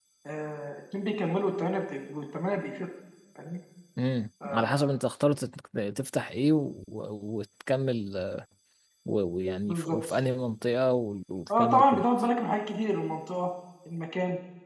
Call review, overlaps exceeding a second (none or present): none